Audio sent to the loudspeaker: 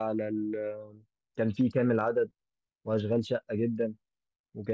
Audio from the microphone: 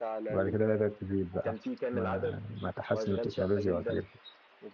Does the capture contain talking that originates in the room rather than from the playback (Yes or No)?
Yes